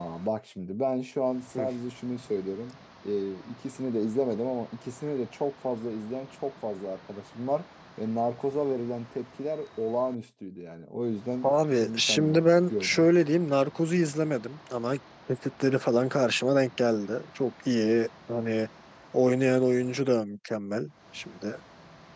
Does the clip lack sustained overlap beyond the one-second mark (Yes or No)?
No